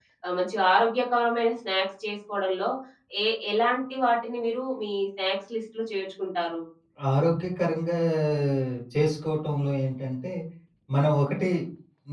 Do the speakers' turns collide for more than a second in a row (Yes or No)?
No